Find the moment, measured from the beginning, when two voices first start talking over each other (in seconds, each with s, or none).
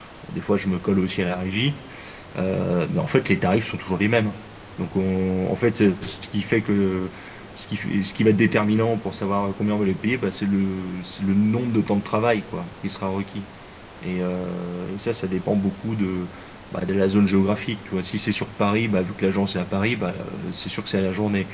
none